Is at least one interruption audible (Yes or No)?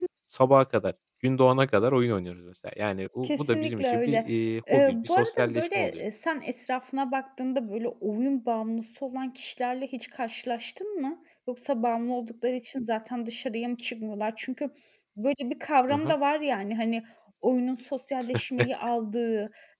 Yes